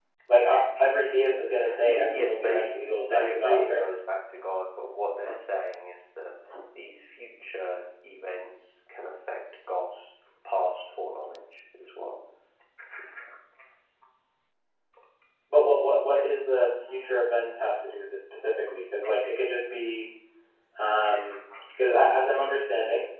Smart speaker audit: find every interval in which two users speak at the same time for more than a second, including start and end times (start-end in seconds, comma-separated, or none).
1.8-3.8